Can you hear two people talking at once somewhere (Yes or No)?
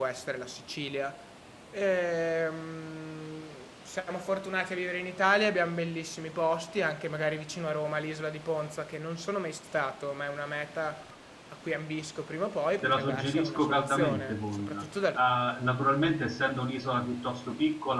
Yes